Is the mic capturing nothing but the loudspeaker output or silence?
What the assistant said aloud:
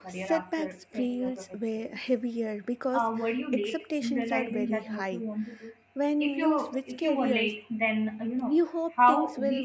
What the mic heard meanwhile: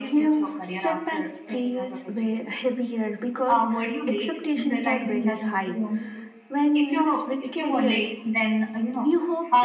Yes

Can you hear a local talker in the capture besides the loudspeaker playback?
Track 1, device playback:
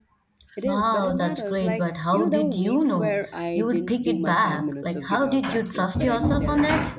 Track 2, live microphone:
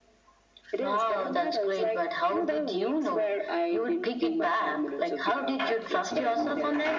No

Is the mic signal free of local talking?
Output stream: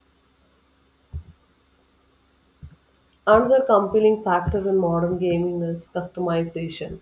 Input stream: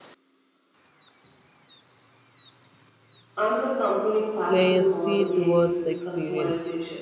No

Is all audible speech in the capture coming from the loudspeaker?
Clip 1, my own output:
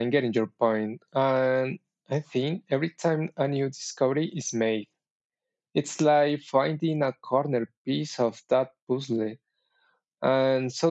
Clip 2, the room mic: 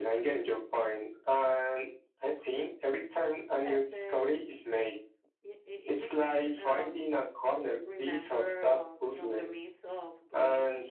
No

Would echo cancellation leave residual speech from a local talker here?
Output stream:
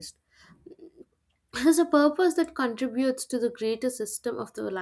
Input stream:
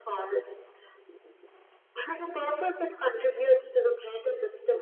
No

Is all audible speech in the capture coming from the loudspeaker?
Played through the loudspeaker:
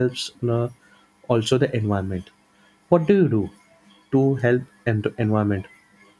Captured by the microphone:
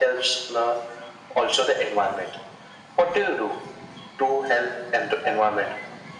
Yes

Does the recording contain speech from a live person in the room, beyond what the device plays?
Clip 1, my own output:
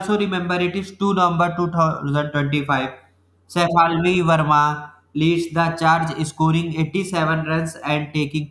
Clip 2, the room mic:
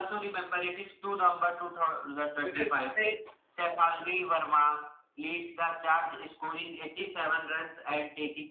Yes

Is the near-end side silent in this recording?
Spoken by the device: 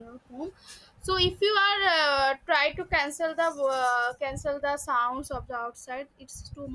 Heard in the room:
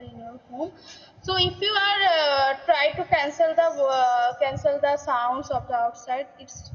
Yes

